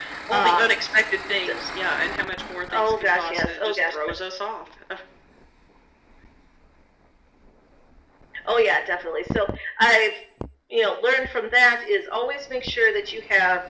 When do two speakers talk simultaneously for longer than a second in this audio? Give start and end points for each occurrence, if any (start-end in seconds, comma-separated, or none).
2.8-4.1